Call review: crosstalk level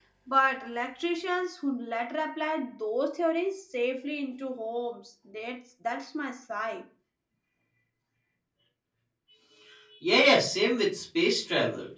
none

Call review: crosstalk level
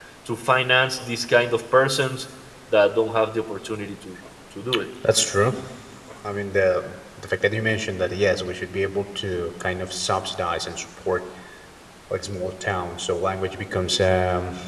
none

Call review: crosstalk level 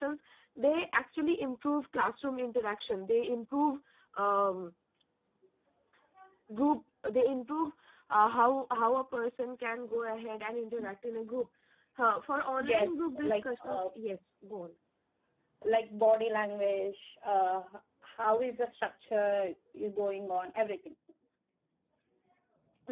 present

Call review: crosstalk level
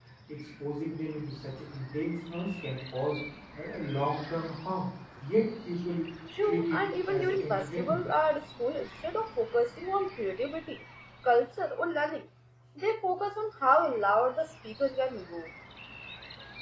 present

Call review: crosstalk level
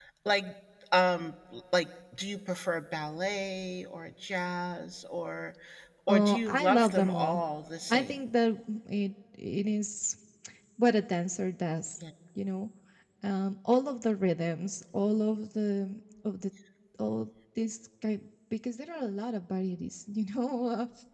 present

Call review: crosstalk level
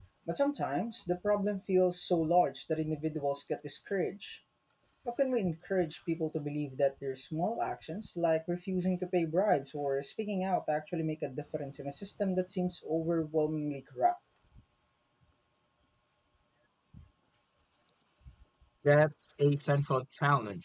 none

